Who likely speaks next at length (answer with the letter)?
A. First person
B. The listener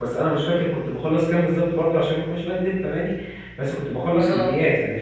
A